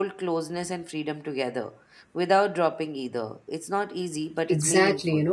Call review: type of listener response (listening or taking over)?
taking over